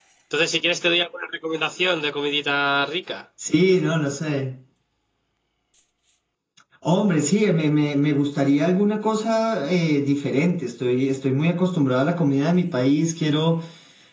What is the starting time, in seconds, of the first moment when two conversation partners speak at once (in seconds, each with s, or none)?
none